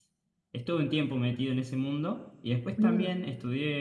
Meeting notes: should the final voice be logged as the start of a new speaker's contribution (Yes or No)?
No